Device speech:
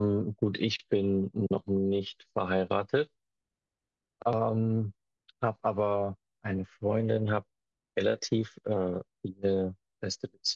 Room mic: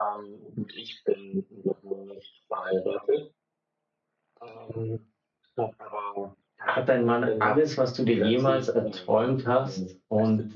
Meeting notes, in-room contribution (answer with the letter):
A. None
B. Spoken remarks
B